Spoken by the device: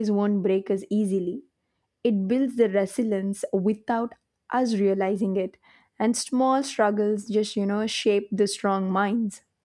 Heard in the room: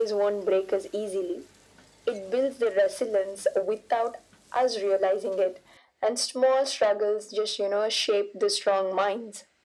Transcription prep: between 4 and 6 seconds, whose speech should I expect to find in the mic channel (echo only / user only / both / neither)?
echo only